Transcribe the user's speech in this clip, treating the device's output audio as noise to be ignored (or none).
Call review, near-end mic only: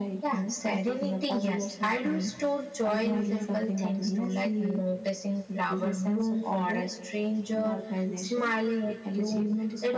none